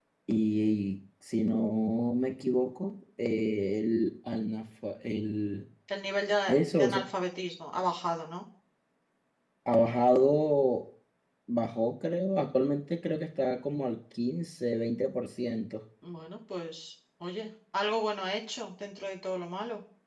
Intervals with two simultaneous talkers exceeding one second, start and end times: none

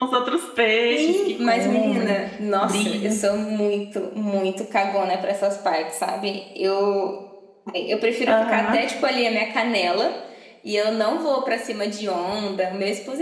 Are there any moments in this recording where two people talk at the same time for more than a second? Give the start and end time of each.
0.9-2.2

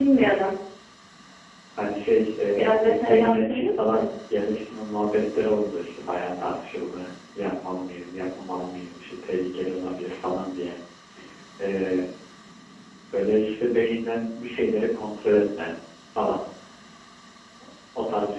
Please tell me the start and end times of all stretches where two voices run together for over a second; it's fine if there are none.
2.5-4.0

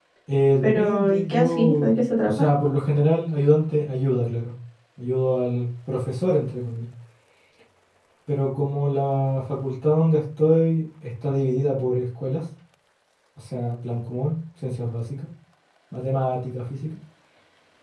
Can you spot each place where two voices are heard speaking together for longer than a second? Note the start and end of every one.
0.6-2.4

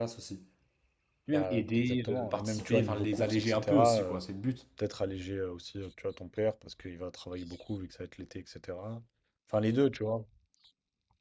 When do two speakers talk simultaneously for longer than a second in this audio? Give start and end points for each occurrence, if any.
1.3-4.2

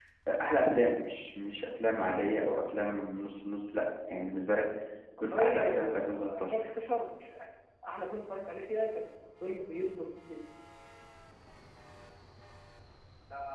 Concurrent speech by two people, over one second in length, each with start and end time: 5.2-6.7

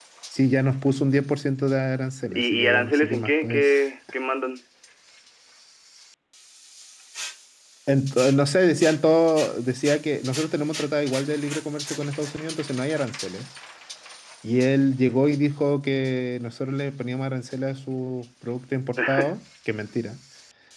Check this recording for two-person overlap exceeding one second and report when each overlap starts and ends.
2.3-3.7

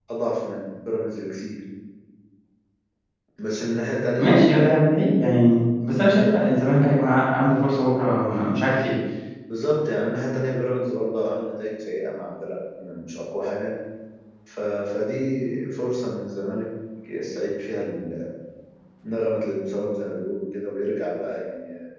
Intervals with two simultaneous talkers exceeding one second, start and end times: none

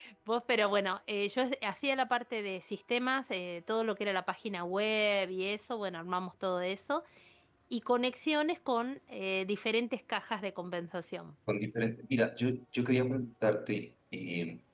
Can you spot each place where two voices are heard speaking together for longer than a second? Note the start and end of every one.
none

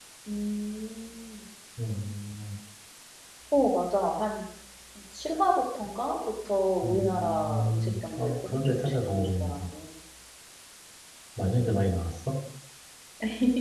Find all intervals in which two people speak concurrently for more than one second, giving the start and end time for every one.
6.8-9.6

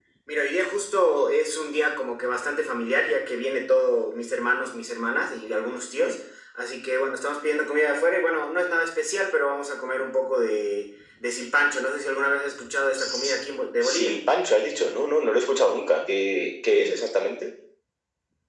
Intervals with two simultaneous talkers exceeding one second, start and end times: none

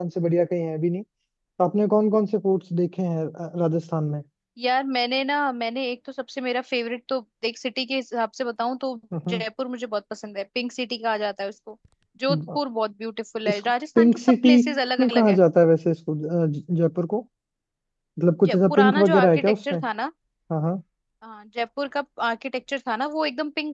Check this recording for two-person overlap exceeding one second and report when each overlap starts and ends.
13.5-15.4, 18.4-19.8

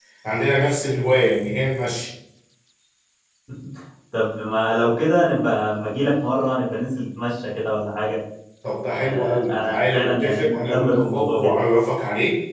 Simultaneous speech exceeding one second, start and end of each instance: 9.0-11.5

